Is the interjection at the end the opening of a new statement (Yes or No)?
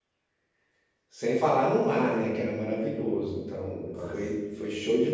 No